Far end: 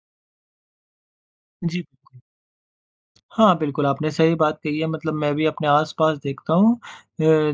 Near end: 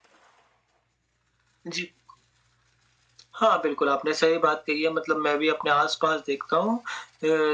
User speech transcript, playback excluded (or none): none